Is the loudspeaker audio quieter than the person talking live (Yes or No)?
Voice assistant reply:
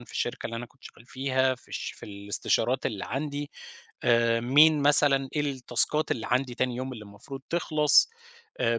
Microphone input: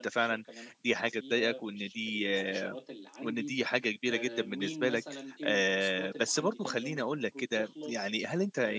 Yes